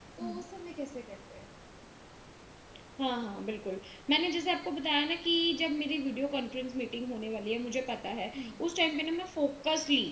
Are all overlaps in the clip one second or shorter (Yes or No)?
Yes